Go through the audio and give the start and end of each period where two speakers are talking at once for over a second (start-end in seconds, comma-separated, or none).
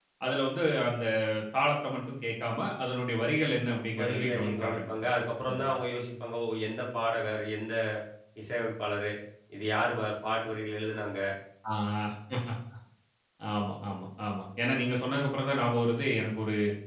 4.0-5.8